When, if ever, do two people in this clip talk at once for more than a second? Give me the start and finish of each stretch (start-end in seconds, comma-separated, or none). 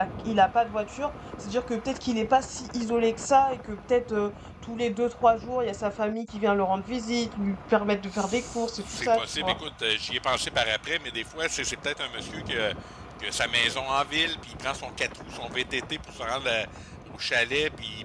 8.1-9.6